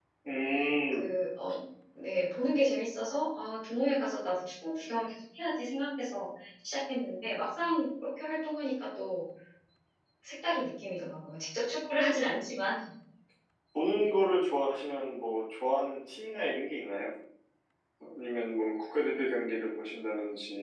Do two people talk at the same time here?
No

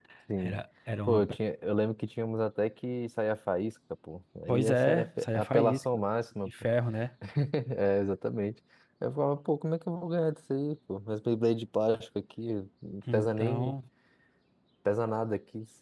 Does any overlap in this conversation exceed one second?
Yes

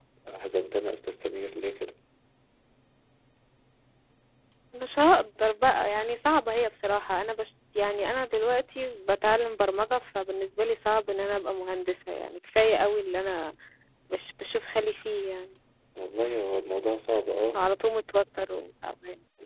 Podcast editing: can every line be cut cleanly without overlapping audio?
Yes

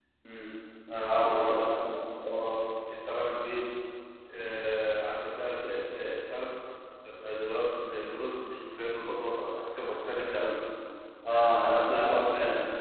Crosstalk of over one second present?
Yes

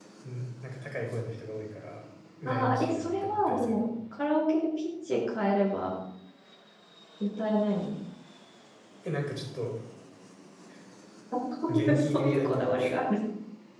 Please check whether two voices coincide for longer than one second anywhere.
Yes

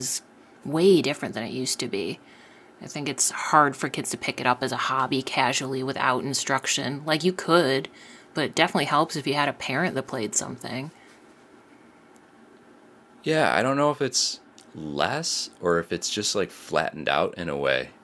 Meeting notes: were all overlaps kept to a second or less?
Yes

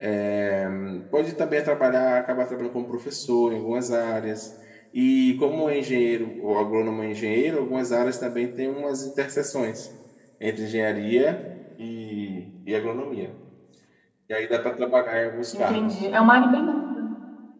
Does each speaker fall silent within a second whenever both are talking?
Yes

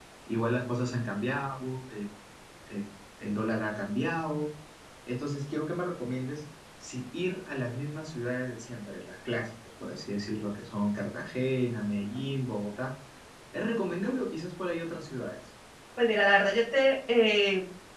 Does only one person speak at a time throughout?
Yes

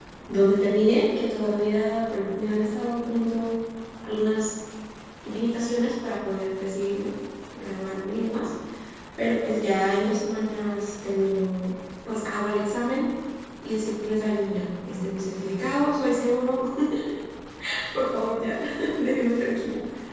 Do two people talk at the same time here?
No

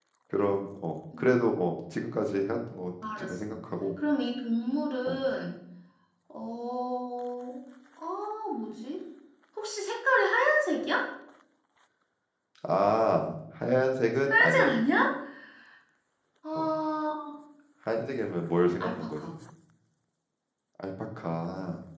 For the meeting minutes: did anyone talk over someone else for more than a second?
No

